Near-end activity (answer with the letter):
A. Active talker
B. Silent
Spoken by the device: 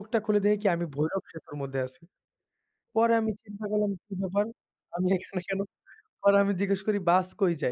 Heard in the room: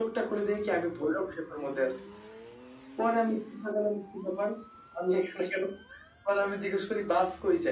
B